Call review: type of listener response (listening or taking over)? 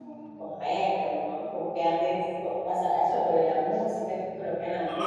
taking over